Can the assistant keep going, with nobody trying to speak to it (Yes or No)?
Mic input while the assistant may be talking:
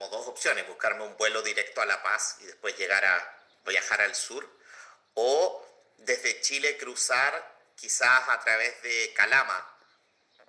Yes